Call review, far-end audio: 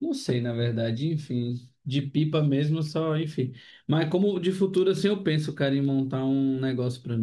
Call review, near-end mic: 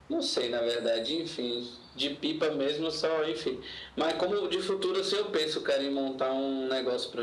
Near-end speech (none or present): none